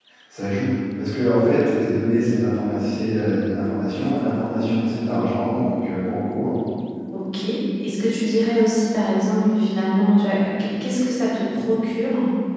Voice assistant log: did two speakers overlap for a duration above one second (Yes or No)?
No